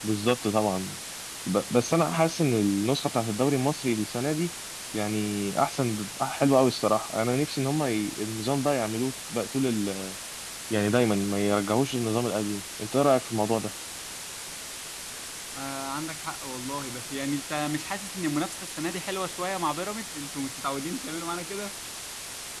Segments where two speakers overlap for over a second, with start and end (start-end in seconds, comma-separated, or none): none